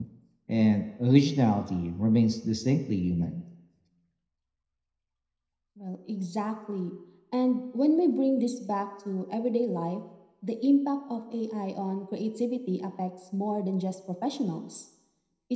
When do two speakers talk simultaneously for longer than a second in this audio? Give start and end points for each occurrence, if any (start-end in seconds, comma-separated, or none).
none